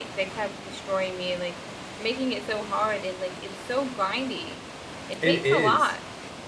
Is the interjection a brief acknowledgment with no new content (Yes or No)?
No